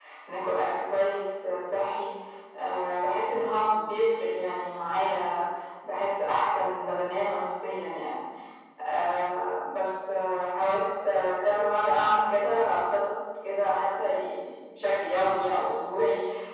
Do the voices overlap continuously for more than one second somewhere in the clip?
No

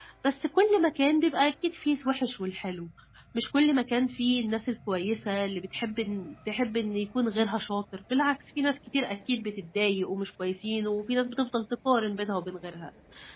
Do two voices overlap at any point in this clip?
No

